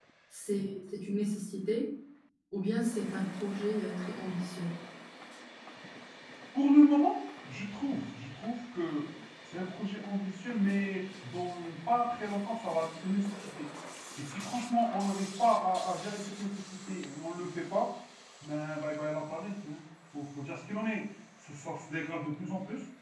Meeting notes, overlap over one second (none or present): none